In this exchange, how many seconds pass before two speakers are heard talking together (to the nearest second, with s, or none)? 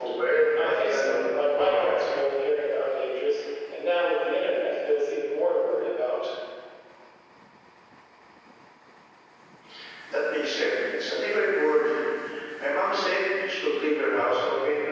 1 s